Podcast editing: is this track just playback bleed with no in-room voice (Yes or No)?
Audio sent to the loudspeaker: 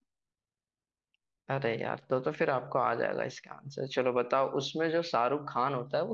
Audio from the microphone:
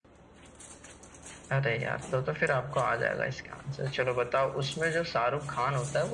Yes